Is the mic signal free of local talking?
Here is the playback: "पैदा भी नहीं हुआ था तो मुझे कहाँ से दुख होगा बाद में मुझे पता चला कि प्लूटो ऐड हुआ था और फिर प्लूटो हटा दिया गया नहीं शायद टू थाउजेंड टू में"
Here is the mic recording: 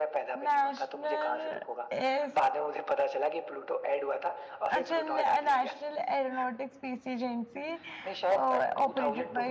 No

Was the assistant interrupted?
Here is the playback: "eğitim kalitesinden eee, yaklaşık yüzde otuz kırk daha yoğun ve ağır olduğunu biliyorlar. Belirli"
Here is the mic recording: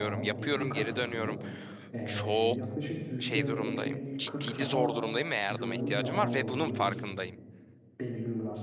Yes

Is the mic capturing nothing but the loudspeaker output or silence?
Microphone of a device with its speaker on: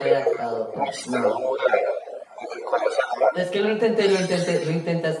No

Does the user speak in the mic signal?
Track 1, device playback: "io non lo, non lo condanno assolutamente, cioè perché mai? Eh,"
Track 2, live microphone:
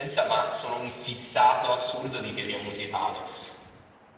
Yes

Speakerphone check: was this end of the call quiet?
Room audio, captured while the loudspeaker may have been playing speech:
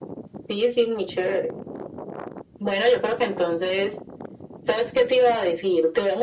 Yes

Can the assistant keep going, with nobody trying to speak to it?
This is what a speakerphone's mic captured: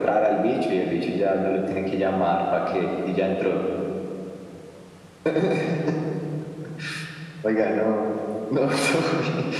Yes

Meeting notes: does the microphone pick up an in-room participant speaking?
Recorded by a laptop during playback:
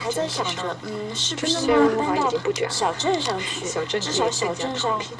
Yes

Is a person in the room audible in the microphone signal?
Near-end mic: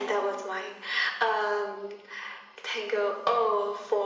No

